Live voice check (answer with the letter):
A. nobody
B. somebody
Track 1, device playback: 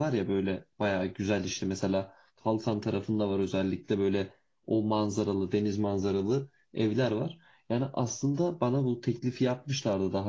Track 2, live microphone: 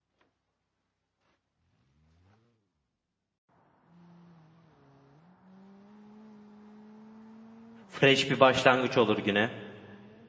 B